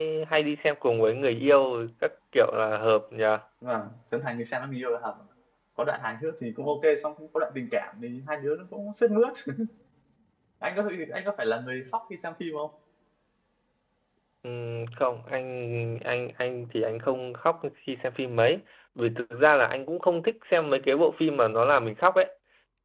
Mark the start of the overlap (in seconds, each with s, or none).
none